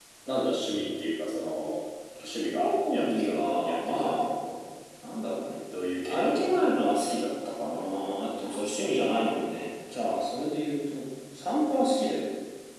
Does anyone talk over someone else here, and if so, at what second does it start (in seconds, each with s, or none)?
2.4 s